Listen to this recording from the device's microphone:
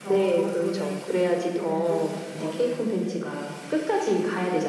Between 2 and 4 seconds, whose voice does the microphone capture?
both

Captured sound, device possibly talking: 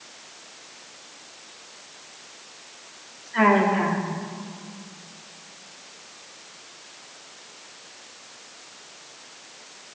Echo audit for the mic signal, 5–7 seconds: neither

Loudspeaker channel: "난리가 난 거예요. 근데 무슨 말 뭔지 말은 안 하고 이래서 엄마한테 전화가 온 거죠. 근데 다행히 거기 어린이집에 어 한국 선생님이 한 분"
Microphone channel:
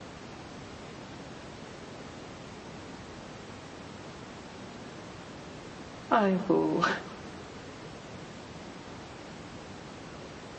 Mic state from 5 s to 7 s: user only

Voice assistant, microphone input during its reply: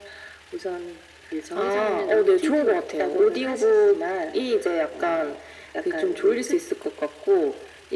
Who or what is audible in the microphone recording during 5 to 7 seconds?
echo only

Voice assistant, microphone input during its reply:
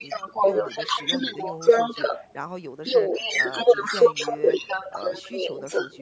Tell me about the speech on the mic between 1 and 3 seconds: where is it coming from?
both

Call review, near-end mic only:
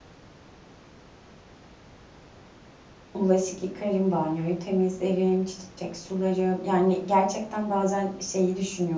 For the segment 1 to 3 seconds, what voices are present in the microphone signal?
neither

